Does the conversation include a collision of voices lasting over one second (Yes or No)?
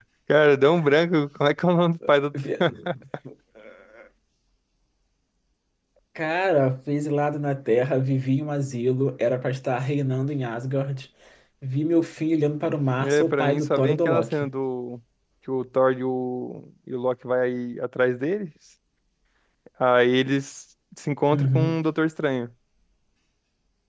Yes